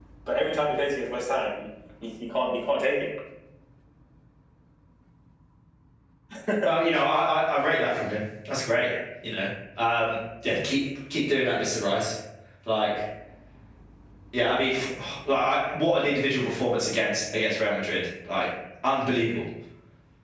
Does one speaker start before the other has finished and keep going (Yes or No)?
No